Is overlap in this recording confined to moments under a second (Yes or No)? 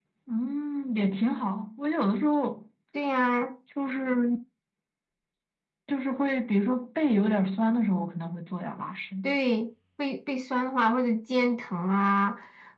Yes